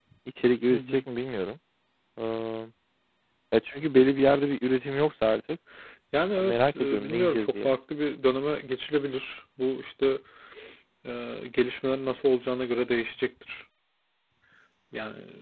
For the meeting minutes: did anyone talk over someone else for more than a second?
Yes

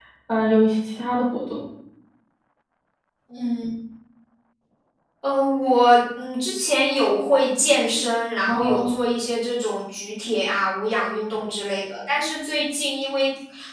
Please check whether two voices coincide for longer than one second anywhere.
No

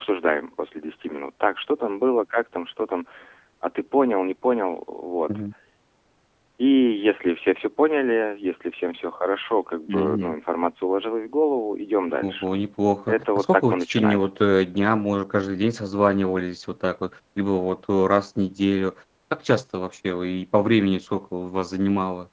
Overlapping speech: Yes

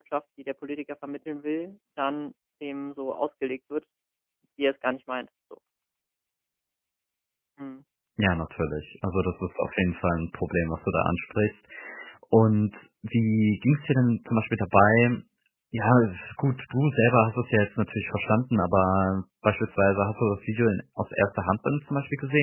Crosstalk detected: No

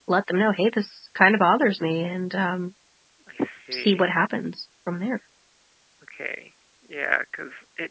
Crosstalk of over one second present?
No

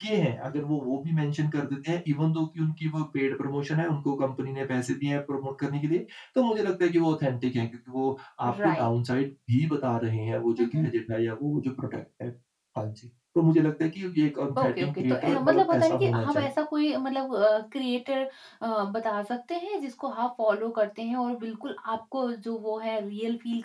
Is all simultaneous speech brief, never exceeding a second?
No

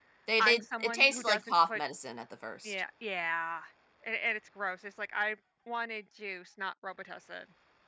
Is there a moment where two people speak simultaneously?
Yes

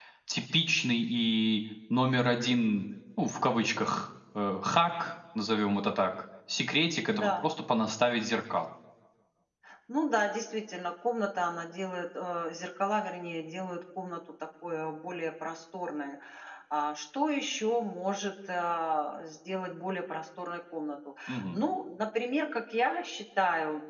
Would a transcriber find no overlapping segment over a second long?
Yes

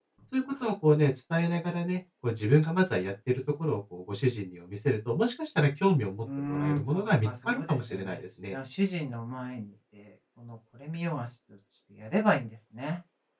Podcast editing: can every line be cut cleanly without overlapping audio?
No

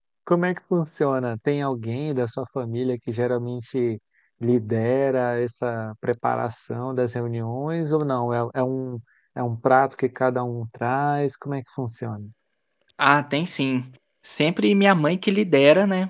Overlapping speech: No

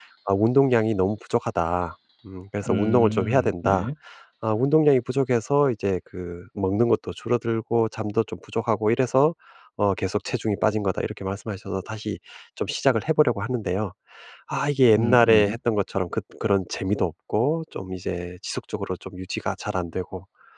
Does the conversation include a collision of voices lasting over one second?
Yes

